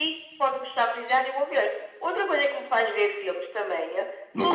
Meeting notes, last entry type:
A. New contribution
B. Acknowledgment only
A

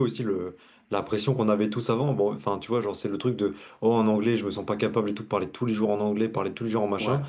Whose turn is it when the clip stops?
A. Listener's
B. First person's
B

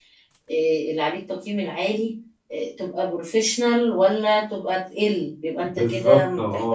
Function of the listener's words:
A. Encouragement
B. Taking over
B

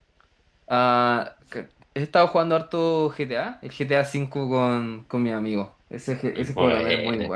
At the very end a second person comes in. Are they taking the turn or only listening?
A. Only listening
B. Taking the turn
A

